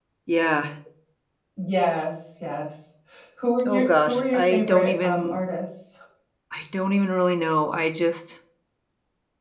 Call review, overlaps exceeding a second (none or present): present